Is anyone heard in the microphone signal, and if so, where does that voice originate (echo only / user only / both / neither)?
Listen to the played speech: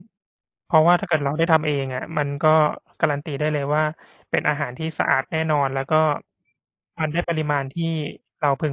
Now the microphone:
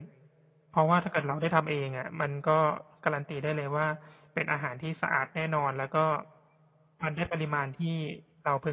echo only